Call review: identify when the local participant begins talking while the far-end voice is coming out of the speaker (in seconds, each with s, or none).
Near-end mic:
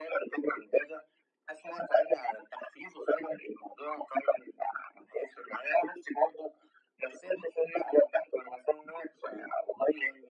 none